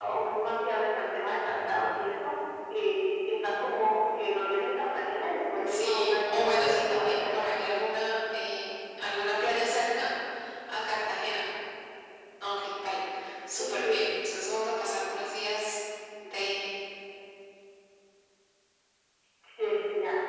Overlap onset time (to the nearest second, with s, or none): 6 s